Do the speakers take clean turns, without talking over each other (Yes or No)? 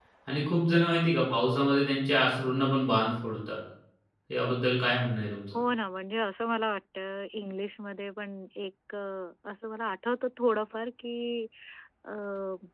Yes